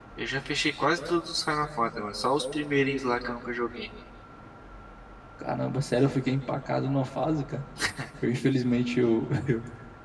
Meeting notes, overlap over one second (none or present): none